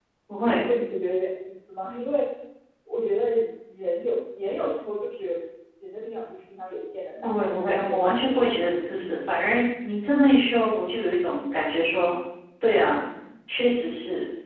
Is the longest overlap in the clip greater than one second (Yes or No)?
Yes